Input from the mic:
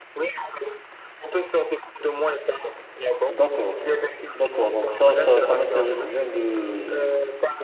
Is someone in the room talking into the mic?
Yes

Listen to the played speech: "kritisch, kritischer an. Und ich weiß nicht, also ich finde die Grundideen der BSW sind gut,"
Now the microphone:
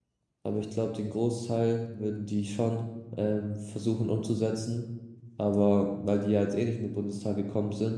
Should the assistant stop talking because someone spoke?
Yes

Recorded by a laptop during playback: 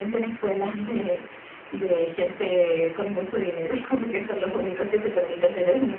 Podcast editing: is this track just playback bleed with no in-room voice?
Yes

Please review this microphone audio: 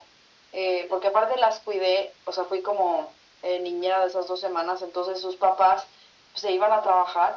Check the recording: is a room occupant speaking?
No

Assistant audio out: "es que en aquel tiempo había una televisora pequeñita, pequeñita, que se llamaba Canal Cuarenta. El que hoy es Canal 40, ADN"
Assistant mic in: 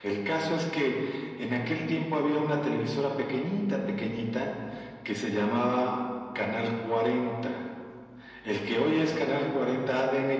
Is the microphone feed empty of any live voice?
Yes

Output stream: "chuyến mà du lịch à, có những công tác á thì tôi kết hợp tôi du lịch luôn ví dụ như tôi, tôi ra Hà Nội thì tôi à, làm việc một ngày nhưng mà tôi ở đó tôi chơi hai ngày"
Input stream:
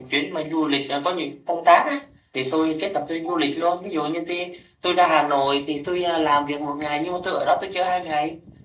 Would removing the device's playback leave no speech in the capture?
Yes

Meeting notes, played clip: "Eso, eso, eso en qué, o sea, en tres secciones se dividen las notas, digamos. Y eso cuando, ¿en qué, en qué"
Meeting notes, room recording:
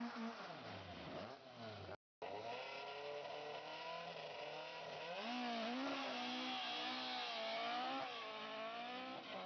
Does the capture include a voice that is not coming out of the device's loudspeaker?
No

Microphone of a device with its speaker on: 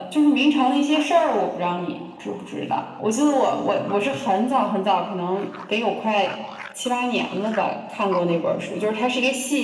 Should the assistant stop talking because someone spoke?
No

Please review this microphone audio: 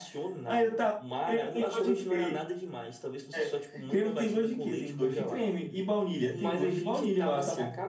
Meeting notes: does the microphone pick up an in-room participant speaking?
Yes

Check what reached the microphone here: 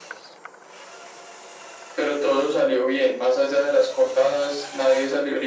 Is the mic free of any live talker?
Yes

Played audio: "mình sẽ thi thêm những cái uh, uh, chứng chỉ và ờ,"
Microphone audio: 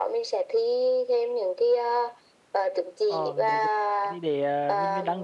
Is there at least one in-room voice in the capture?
Yes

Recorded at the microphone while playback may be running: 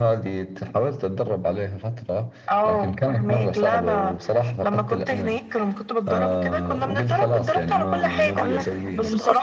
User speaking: Yes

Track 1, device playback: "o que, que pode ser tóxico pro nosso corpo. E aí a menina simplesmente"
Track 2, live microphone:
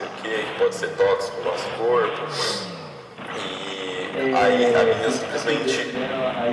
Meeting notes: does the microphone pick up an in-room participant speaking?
Yes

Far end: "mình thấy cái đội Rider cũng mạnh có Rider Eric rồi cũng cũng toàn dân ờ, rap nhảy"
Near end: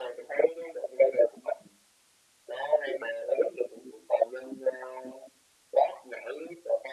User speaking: No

